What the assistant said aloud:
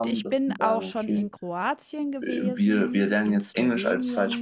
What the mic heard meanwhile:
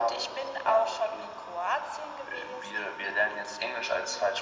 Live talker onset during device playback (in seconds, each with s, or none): none